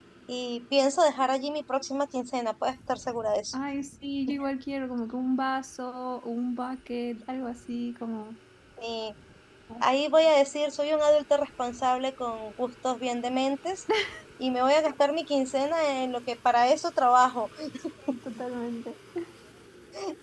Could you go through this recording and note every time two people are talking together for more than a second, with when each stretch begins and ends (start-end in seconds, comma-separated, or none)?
none